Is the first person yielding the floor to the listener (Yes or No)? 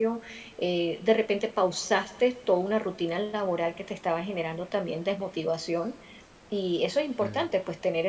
No